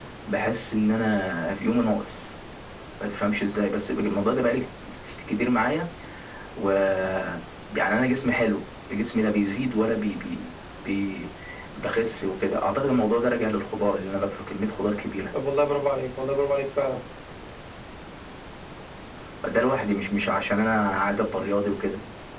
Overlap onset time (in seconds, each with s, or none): none